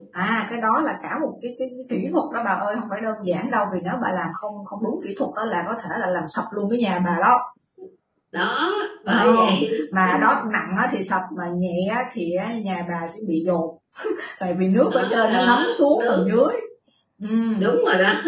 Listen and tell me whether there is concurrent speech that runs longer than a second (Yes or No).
Yes